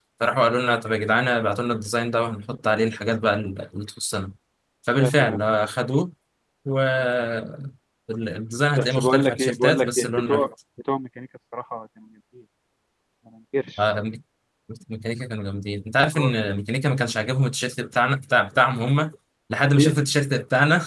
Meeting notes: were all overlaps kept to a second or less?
No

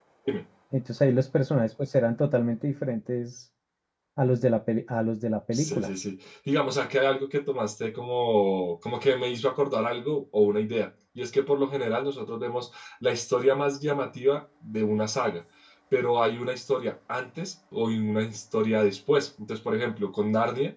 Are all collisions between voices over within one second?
Yes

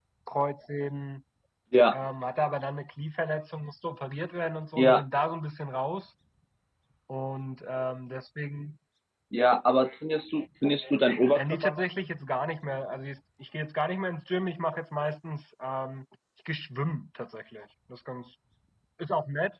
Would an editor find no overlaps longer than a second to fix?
Yes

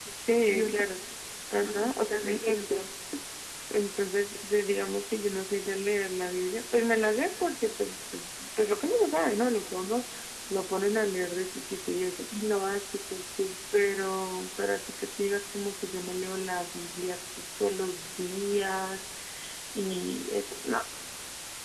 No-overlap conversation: No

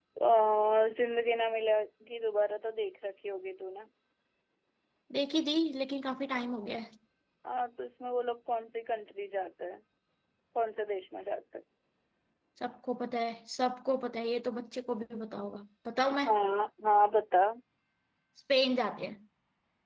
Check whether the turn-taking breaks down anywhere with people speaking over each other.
No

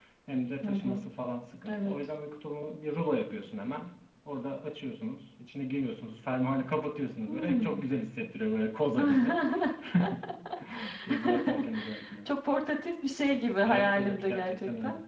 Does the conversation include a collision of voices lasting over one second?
Yes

